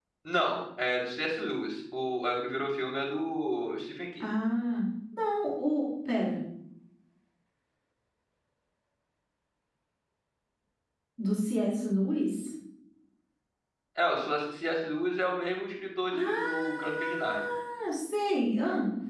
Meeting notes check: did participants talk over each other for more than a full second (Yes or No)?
Yes